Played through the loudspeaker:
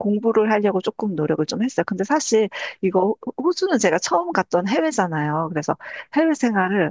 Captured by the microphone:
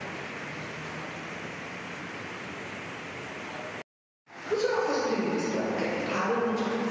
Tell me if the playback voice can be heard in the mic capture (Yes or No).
No